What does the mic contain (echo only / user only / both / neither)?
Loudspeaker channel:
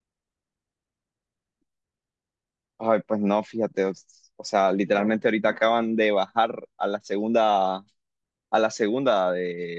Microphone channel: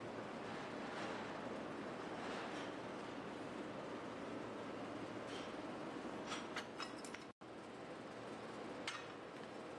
neither